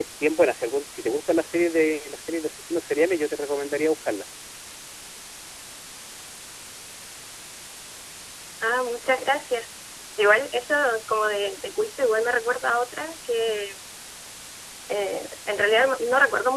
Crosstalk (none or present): none